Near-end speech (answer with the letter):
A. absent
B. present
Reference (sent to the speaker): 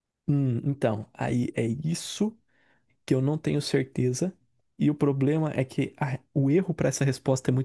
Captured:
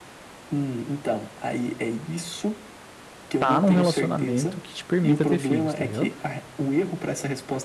B